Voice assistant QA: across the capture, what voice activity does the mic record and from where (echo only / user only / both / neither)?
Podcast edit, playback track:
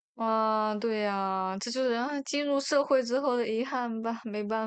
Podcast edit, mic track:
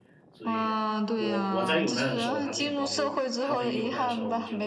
both